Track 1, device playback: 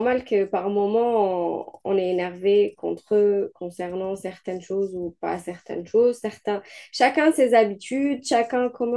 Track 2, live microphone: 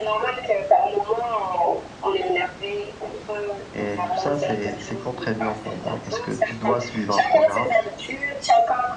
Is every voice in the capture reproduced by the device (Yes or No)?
No